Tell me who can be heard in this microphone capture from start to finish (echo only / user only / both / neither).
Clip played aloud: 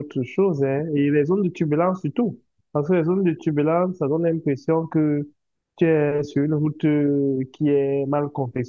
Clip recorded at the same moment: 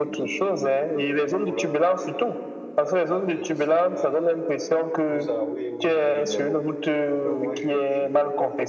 both